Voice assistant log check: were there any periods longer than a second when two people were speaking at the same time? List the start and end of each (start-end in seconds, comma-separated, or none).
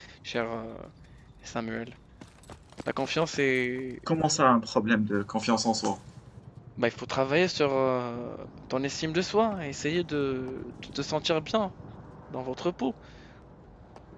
none